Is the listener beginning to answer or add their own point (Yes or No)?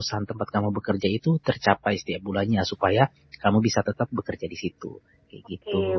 Yes